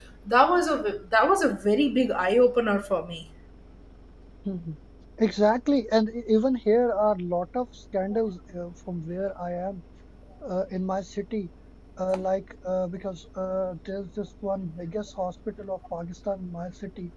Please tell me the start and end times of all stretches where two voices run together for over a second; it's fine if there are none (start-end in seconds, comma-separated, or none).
none